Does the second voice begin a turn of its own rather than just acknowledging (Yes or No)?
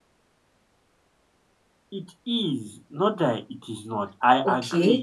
Yes